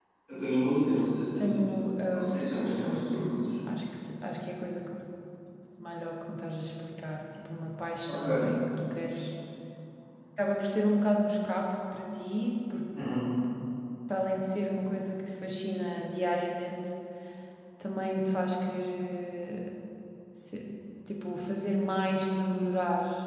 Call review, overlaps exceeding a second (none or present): present